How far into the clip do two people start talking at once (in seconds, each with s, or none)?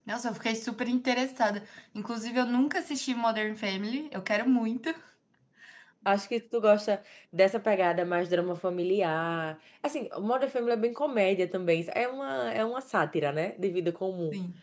none